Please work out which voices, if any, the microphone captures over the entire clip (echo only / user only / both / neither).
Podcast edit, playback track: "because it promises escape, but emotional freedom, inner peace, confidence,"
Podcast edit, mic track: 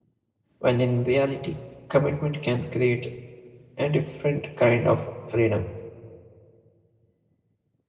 user only